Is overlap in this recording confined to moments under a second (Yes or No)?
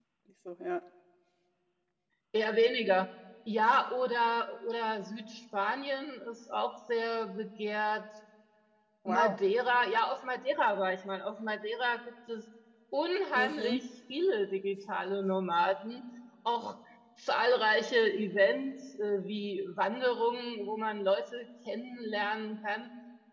Yes